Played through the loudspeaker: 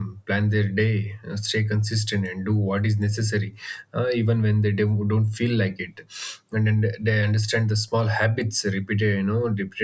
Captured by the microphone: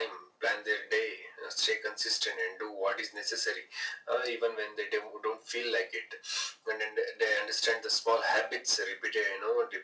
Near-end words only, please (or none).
none